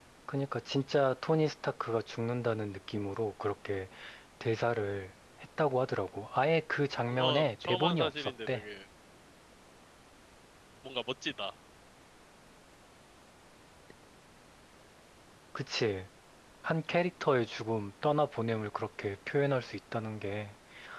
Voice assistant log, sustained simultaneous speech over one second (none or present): present